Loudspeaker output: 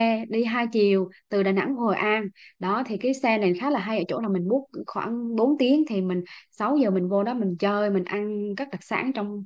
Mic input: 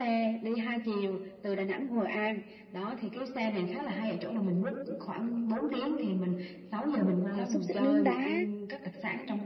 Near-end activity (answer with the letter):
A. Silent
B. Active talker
B